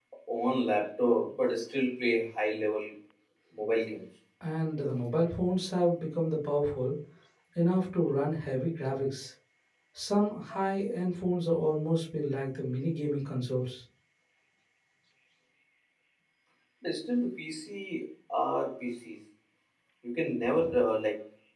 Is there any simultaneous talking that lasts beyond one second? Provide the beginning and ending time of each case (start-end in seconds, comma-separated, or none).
none